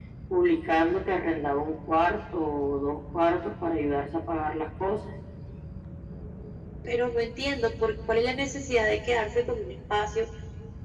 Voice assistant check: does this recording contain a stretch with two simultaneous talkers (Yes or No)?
No